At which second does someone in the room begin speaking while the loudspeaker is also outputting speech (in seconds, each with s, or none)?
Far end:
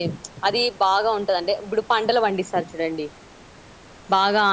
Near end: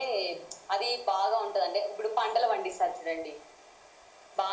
none